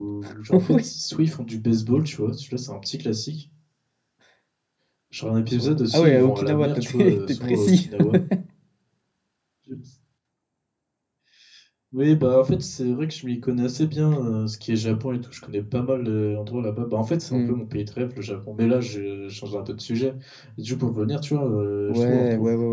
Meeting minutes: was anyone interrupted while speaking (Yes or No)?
Yes